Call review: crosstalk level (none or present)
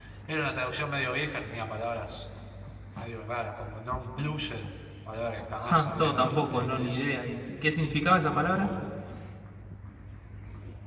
present